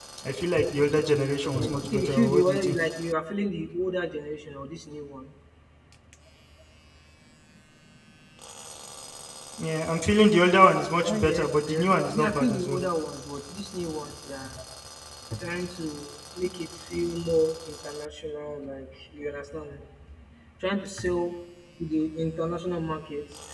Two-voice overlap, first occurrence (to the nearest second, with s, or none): 1 s